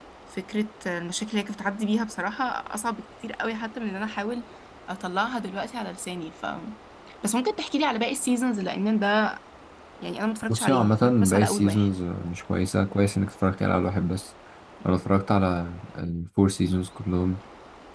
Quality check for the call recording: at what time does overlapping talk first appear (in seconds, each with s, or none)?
10.5 s